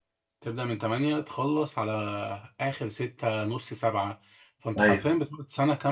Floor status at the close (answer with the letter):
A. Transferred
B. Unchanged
B